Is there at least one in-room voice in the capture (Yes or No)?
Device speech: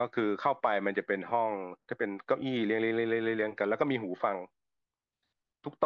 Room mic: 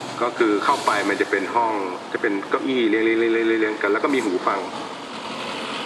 No